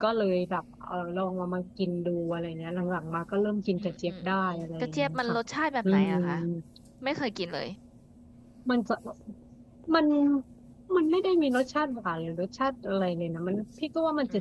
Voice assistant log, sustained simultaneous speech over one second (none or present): present